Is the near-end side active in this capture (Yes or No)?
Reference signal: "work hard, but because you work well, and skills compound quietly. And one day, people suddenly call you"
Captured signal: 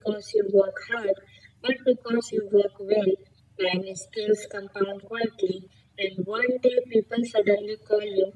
No